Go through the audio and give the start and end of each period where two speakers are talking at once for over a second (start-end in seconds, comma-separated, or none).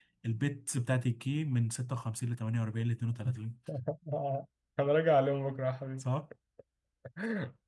none